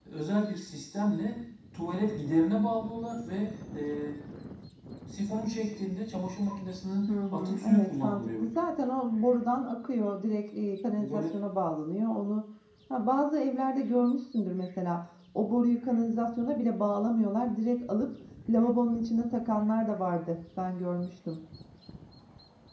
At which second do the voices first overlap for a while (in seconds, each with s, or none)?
7.1 s